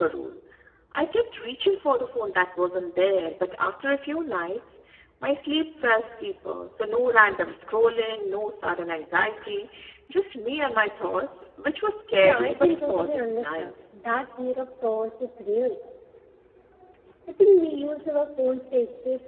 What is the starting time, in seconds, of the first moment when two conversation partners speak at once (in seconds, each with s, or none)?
12.2 s